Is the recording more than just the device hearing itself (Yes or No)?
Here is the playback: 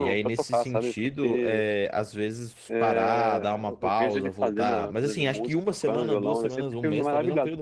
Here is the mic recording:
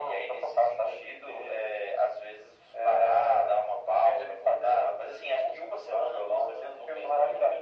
No